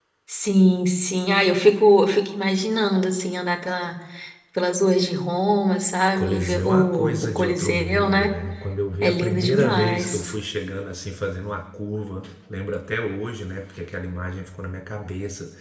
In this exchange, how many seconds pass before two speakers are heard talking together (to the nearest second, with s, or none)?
6 s